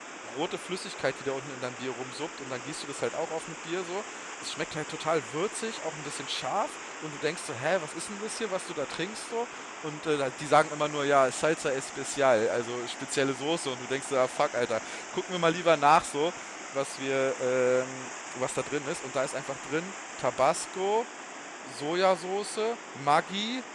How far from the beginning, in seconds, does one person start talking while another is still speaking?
none

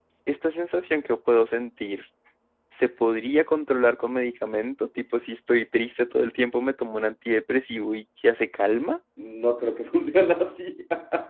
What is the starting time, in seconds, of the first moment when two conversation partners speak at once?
none

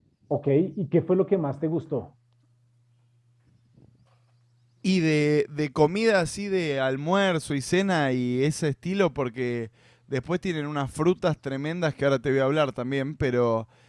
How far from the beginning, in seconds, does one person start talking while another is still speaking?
none

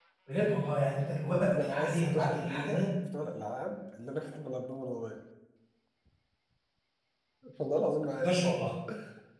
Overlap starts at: 1.5 s

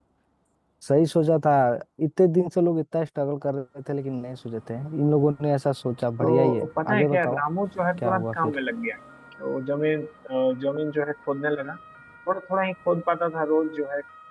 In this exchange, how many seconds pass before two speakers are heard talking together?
6.2 s

